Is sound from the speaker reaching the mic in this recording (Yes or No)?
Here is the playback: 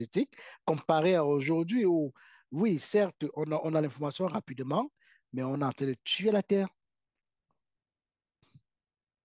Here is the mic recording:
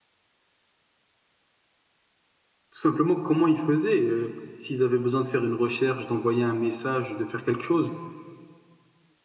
No